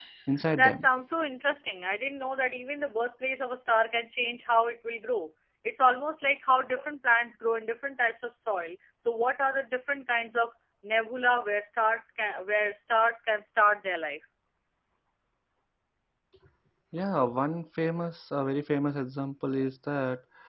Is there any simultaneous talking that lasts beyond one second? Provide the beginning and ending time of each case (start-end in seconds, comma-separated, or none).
none